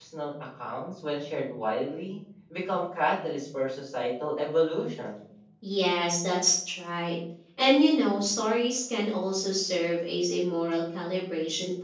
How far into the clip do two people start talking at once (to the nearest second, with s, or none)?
none